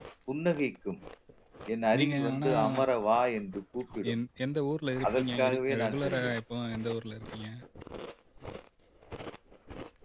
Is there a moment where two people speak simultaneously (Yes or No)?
Yes